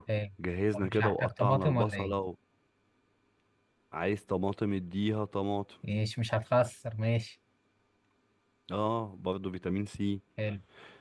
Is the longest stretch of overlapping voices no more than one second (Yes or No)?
No